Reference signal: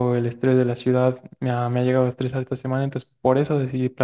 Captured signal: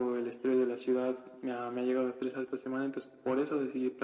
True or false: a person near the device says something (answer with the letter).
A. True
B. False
B